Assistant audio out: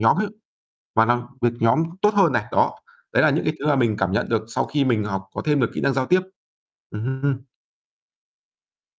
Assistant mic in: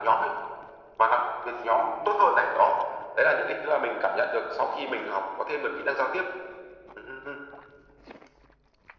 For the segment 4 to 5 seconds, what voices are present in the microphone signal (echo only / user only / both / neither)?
echo only